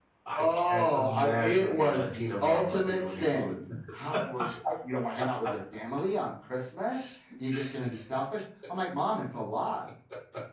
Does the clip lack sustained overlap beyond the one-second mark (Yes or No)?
No